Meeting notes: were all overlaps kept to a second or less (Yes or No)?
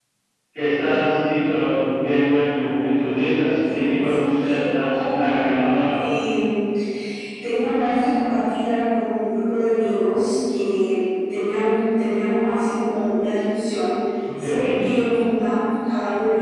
No